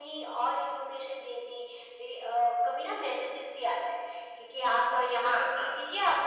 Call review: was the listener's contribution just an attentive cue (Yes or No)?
Yes